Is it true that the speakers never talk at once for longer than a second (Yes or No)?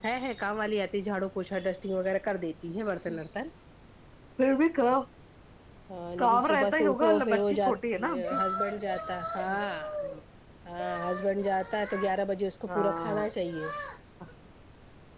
No